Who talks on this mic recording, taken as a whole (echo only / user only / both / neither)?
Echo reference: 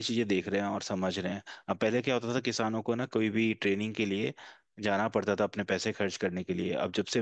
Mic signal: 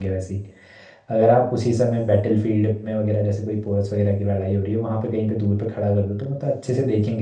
user only